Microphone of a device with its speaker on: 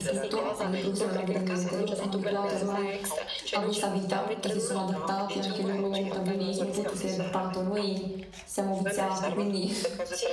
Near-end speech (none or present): present